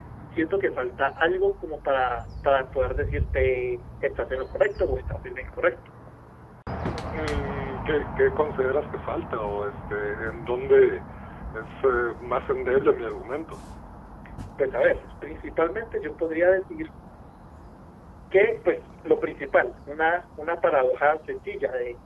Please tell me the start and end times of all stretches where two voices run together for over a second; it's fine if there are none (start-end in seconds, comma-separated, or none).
none